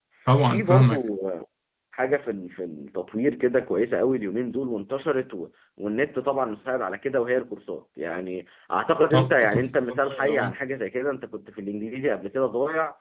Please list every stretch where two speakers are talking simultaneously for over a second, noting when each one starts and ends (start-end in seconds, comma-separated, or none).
9.1-10.5